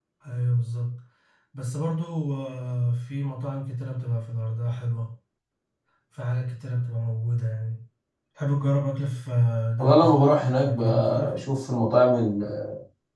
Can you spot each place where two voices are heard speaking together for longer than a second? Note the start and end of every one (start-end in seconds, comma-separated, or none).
9.8-11.4